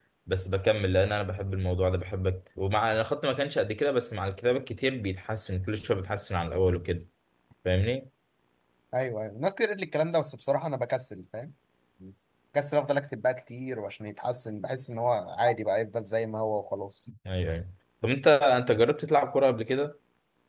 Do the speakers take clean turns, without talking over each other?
Yes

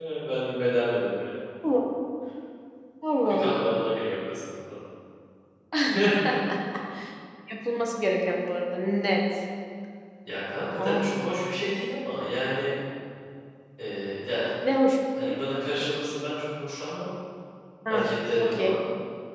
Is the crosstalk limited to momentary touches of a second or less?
Yes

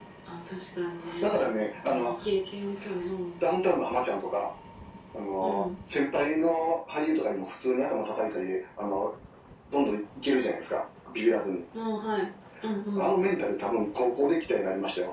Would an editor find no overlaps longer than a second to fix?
Yes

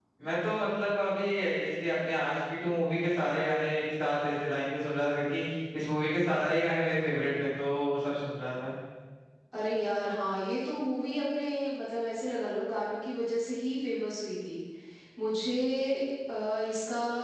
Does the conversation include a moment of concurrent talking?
No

